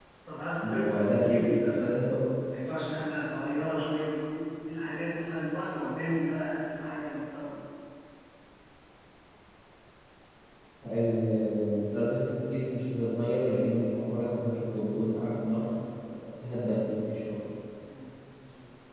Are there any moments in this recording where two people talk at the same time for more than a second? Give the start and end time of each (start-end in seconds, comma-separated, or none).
0.6-1.9